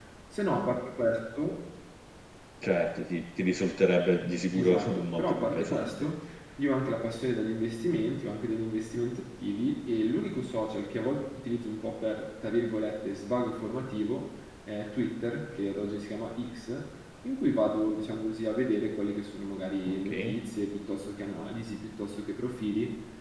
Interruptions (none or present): present